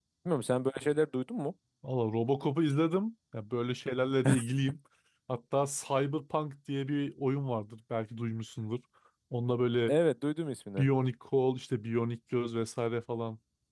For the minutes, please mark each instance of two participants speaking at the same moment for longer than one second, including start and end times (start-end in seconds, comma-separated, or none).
none